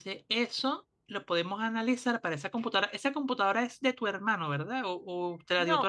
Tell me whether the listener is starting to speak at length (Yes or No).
Yes